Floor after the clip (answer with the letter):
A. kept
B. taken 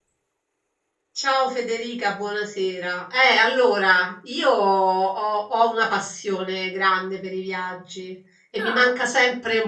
A